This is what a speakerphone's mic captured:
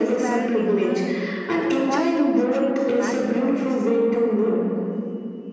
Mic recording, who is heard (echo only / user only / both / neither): both